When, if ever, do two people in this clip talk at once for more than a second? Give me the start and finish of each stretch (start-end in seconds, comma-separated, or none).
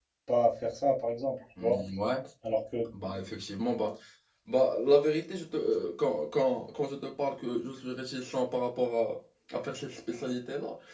none